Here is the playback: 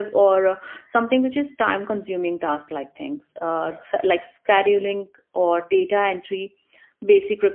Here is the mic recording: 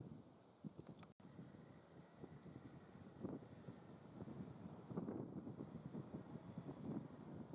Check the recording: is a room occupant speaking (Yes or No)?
No